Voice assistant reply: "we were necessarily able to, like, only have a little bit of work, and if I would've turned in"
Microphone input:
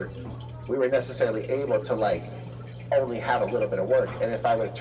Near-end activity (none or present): none